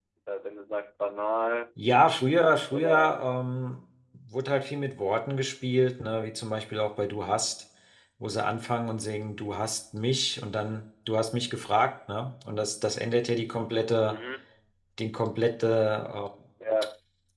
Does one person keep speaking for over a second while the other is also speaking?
No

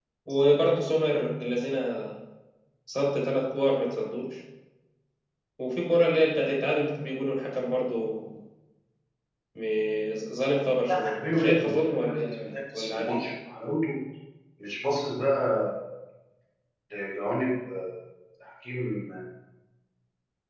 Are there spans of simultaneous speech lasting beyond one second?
Yes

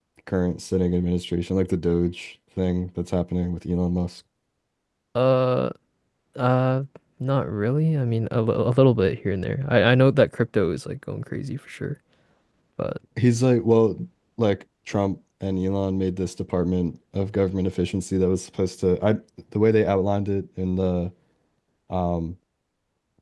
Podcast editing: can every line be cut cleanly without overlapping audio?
Yes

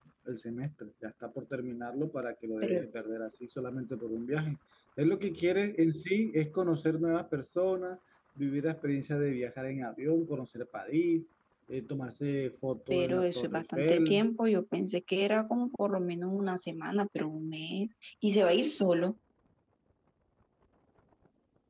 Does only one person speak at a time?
No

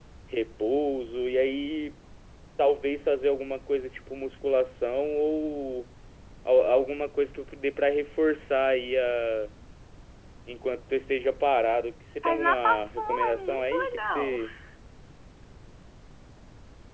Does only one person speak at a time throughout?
No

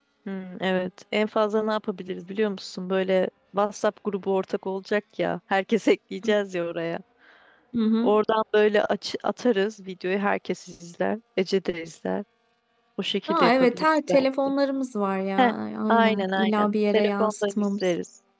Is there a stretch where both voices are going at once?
Yes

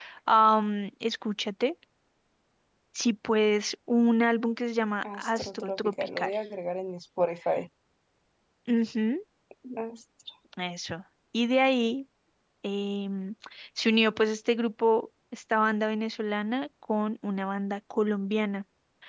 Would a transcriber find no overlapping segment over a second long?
No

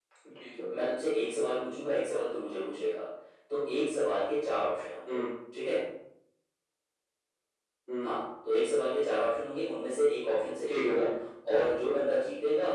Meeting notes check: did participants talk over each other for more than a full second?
No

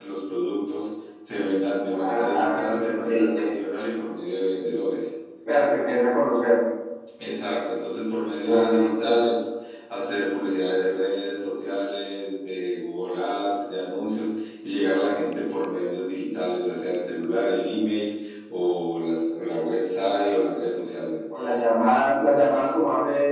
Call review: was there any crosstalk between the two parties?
Yes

